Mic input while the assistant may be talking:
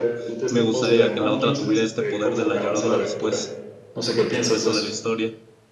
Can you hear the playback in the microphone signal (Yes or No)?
Yes